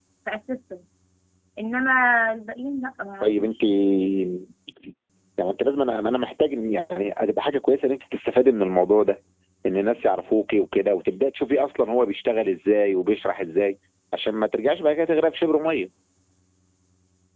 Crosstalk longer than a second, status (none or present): none